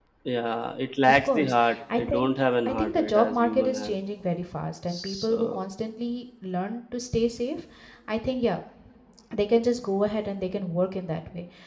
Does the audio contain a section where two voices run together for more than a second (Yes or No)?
Yes